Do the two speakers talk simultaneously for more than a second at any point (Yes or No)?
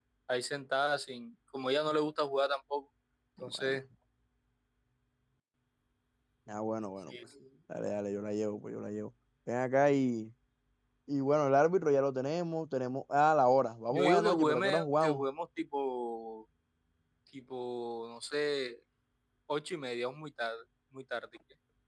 Yes